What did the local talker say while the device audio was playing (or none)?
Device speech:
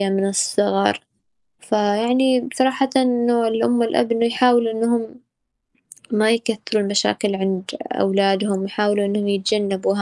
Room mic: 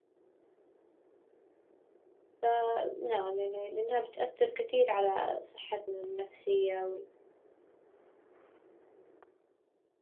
فنعم يعني لأنها بتأثر كثير على صحتنا النفسية